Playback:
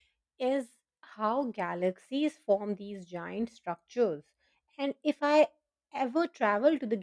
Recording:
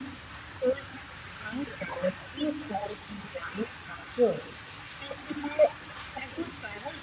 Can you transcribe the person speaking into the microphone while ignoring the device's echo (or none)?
none